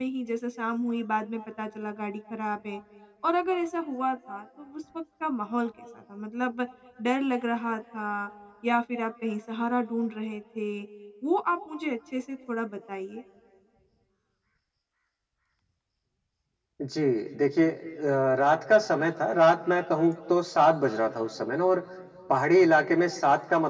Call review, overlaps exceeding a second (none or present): none